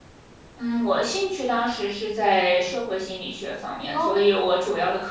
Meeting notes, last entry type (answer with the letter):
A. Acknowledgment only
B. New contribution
A